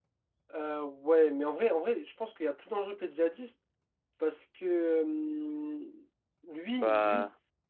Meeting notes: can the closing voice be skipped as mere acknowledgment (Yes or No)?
Yes